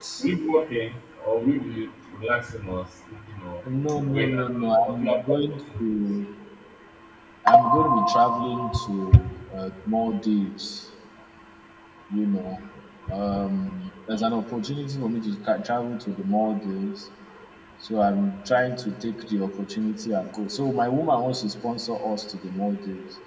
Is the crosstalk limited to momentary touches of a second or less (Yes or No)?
No